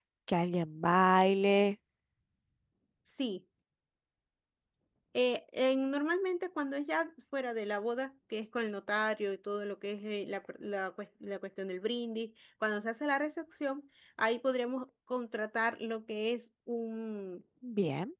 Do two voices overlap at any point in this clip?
No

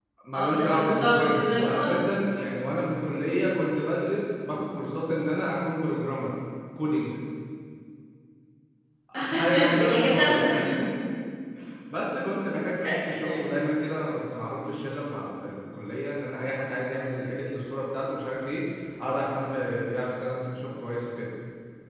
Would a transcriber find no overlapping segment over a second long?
No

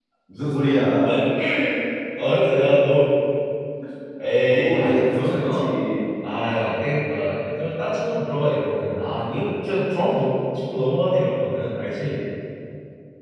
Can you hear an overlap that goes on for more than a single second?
Yes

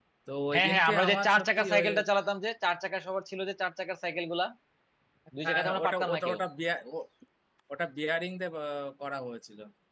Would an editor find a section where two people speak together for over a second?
Yes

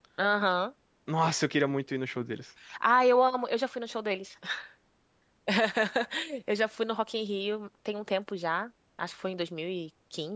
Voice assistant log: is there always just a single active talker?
Yes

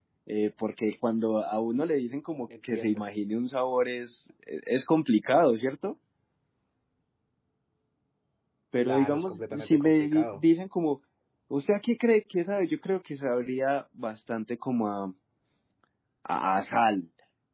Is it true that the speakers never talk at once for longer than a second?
No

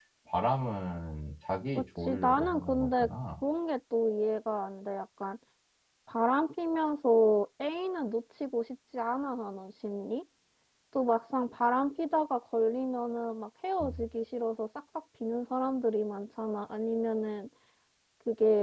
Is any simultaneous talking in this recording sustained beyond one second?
Yes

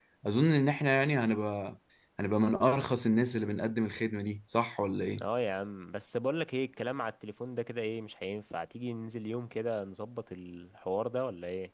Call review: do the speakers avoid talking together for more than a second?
Yes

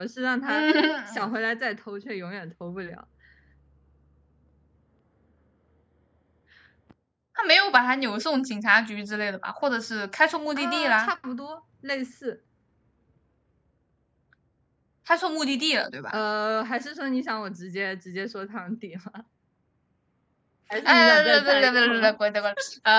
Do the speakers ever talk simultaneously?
Yes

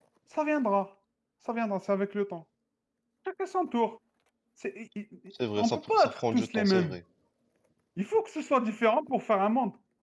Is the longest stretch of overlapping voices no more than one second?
No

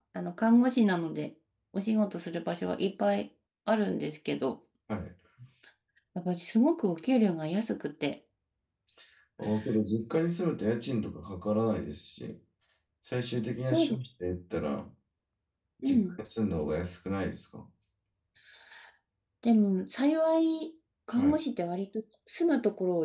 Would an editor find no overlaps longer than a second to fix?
Yes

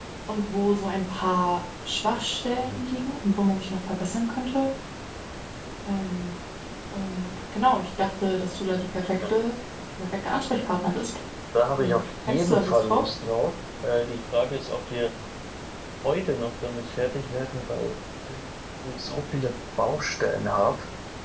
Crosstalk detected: Yes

